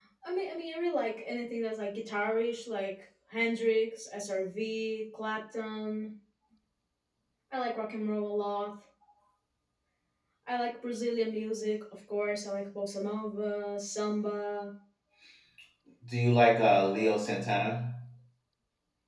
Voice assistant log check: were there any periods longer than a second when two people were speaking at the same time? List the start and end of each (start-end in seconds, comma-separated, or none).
none